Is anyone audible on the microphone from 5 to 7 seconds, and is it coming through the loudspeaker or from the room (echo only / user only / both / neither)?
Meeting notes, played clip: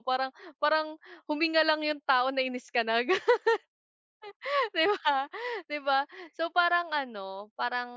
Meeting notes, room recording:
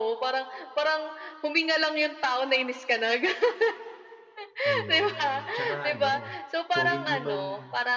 both